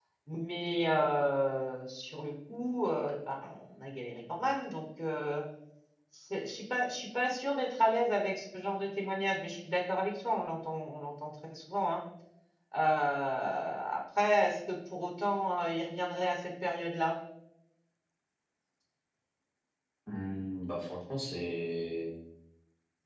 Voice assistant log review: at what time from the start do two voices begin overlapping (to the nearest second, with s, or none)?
none